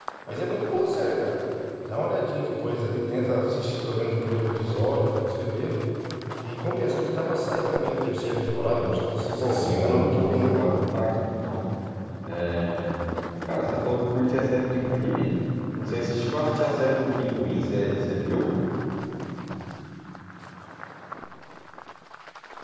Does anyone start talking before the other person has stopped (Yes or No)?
Yes